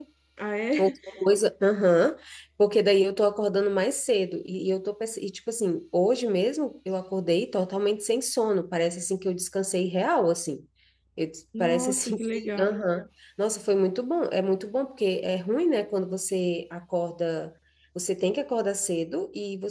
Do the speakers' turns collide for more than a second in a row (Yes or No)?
Yes